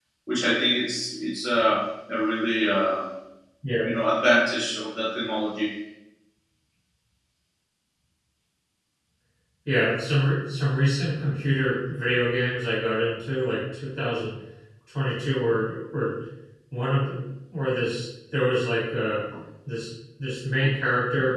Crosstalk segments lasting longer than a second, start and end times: none

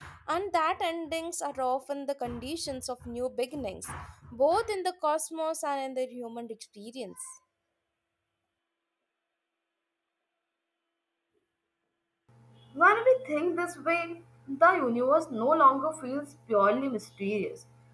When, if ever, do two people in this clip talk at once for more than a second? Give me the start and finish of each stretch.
none

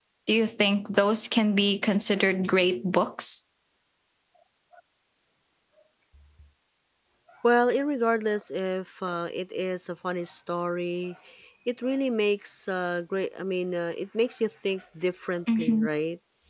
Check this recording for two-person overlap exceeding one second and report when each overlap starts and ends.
none

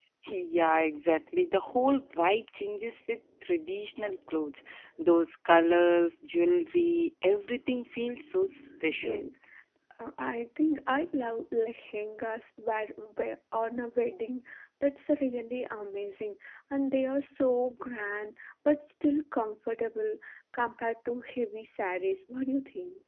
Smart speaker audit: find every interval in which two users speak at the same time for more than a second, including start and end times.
none

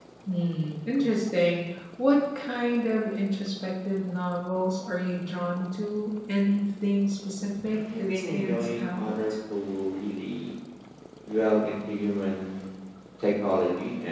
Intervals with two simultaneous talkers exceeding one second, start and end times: 7.7-9.1

